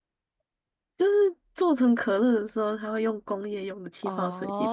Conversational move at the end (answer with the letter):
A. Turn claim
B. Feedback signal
A